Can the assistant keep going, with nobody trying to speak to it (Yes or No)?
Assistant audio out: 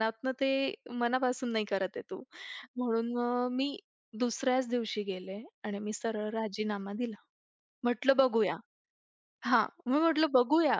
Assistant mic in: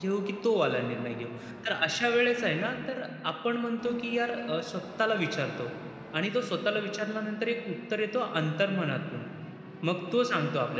No